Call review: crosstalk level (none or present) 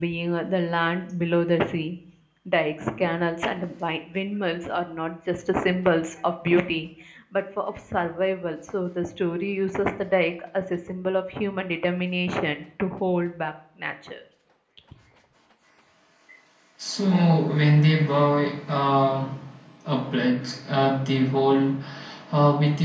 none